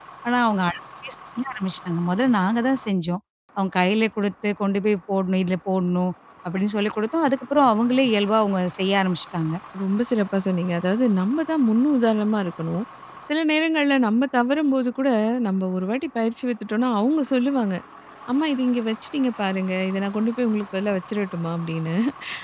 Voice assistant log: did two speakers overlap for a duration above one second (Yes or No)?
No